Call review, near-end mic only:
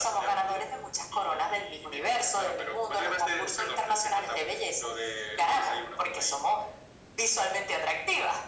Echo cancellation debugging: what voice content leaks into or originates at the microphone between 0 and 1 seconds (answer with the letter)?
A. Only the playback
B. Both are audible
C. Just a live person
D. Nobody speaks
A